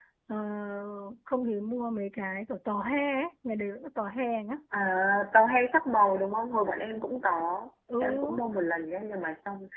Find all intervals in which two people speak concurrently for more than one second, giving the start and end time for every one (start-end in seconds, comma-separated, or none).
none